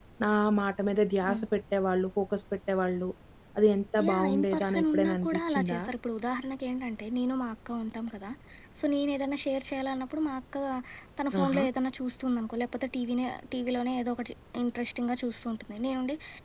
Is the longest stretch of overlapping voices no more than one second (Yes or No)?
No